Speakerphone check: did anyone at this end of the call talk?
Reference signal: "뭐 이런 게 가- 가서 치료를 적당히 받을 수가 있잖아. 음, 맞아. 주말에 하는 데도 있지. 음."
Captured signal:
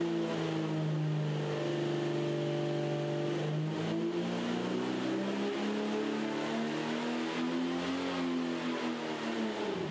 No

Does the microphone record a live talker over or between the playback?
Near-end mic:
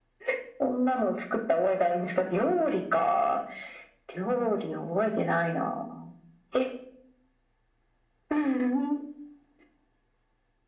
No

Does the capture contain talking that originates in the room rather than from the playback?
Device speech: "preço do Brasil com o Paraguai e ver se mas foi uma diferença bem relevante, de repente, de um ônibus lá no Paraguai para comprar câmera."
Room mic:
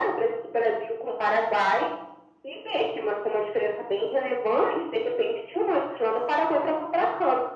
No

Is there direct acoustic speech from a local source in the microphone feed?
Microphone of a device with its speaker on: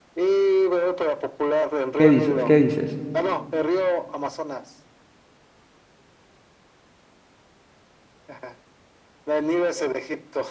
Yes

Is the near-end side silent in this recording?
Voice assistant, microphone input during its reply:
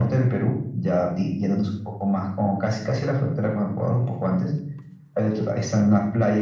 Yes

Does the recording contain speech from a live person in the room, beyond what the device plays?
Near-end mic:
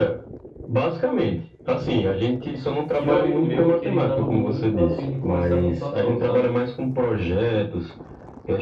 Yes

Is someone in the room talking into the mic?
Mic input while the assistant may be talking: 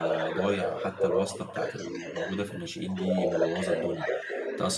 Yes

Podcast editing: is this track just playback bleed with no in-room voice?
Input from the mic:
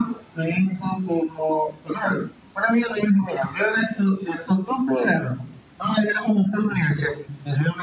Yes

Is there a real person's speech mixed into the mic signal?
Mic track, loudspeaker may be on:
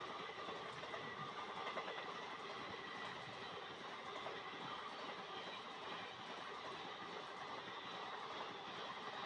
No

